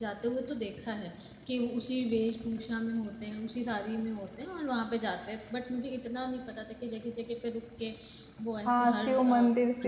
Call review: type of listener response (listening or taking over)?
taking over